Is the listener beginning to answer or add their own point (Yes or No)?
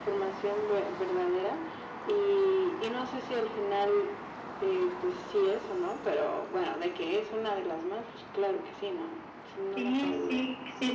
Yes